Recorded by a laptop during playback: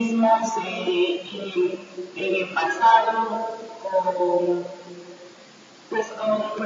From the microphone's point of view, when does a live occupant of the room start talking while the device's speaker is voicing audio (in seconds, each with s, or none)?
none